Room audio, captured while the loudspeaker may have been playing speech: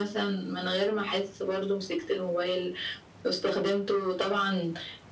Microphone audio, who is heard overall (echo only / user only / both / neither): echo only